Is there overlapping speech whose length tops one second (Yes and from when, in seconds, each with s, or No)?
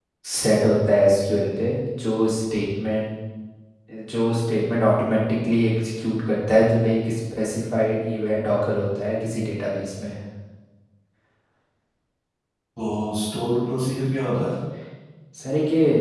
No